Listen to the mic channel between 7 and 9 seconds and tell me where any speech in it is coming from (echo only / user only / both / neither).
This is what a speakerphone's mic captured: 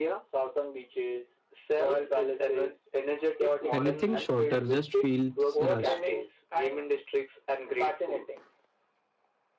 echo only